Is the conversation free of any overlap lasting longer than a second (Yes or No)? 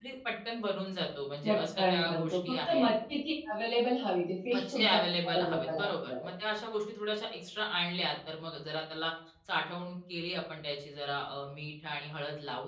No